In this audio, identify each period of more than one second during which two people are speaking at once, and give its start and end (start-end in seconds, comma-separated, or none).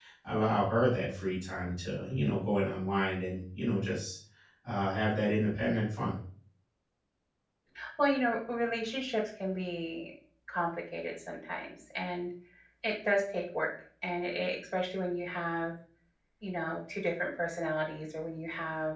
none